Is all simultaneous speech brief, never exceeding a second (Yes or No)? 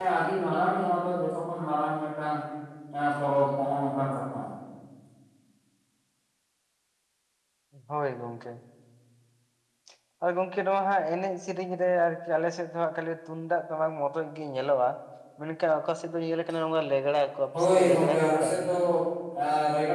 No